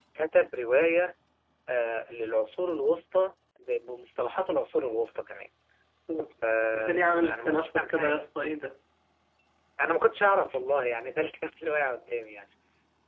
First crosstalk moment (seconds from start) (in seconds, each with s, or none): 6.7 s